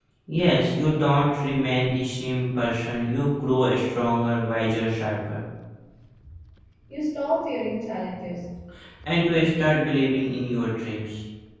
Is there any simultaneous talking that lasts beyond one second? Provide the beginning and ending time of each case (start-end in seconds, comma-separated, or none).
none